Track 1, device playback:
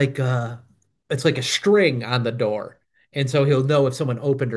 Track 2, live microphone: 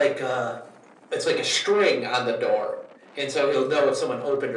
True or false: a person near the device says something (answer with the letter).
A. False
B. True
A